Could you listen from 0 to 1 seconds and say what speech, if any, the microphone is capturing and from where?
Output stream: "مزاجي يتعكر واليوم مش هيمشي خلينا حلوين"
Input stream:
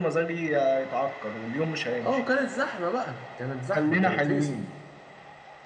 echo only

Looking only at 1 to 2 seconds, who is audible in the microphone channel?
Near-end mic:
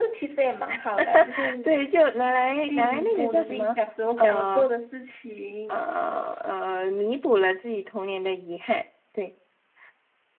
both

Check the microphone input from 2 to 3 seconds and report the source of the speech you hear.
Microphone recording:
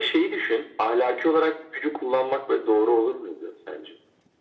echo only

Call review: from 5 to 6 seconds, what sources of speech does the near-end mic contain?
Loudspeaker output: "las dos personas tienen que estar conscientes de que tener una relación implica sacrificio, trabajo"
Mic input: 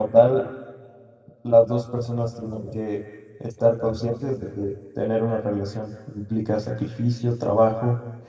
echo only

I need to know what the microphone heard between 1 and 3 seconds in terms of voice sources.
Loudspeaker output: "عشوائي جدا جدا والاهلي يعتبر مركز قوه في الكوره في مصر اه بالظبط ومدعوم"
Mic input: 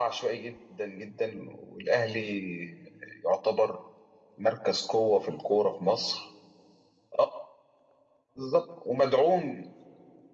echo only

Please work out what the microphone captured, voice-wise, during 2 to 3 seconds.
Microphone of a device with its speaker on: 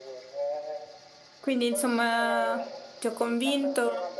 both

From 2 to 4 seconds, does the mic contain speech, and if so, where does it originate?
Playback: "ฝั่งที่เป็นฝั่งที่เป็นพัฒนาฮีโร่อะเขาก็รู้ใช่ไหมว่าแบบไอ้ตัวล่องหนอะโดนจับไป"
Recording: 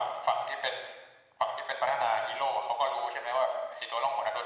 echo only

